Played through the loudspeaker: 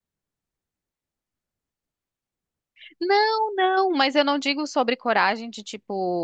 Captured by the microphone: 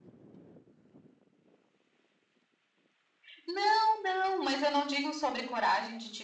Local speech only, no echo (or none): none